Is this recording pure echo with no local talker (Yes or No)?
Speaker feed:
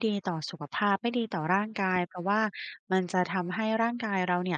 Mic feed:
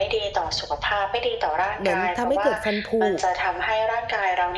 No